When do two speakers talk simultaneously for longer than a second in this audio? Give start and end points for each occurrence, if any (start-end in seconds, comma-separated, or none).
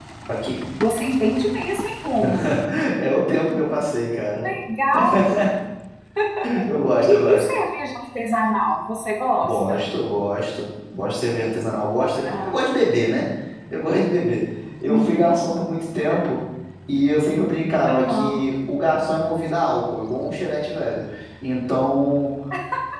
none